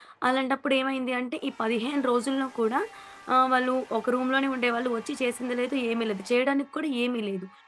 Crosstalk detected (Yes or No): No